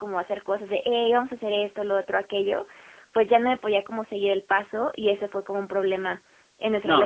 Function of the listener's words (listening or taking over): taking over